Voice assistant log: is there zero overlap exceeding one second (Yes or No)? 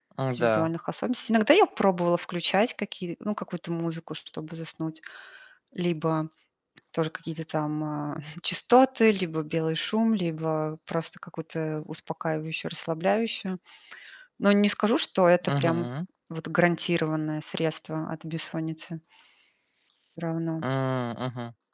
Yes